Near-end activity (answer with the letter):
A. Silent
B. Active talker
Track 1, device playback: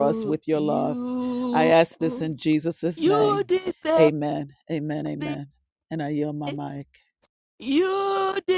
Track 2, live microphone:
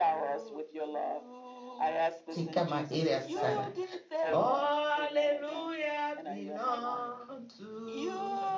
B